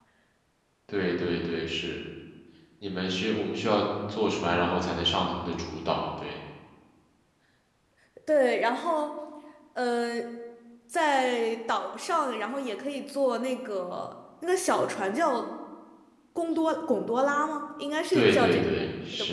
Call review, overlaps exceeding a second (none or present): present